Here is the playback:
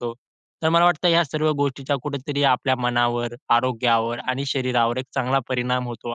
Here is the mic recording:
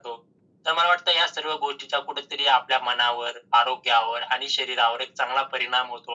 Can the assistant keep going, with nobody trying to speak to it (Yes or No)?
Yes